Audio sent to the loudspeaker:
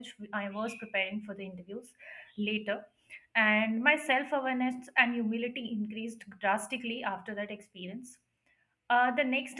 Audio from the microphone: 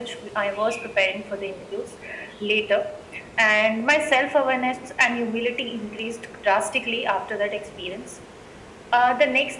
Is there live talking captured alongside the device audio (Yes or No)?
No